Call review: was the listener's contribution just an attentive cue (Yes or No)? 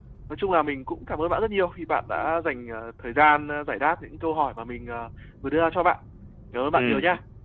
No